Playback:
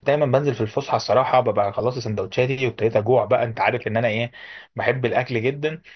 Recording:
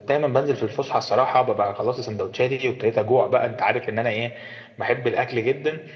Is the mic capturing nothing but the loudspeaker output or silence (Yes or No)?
Yes